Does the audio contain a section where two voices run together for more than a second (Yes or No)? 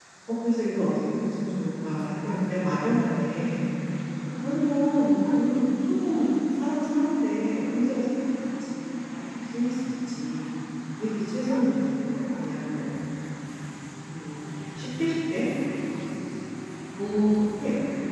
No